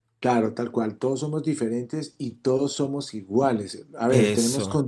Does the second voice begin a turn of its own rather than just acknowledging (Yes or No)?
No